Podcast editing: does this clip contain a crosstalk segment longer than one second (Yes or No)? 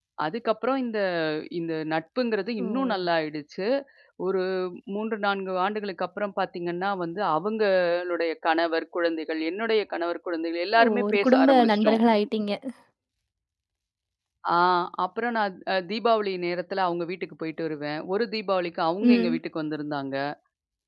Yes